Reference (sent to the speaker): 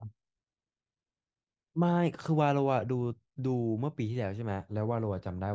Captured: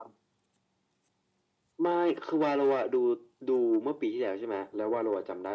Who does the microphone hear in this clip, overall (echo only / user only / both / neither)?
echo only